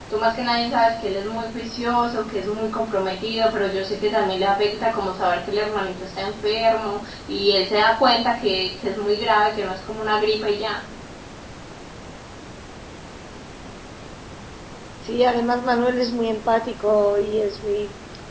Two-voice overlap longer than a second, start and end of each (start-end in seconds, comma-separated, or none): none